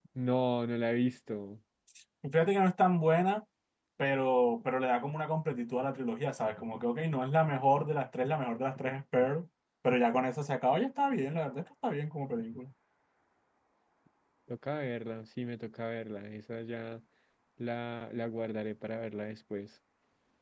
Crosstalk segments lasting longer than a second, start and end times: none

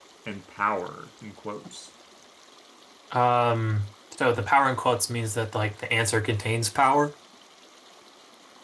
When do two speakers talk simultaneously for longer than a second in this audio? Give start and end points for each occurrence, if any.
none

